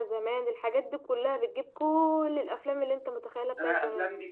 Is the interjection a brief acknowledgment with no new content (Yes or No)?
No